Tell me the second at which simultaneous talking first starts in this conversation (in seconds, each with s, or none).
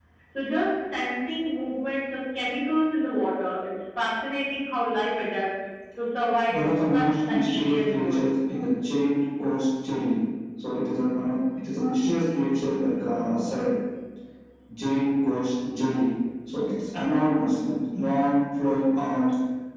6.5 s